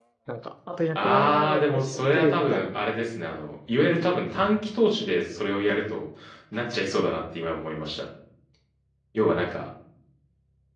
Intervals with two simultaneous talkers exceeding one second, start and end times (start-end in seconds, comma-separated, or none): 1.0-2.7